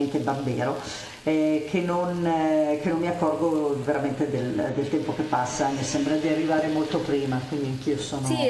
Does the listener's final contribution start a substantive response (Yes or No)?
Yes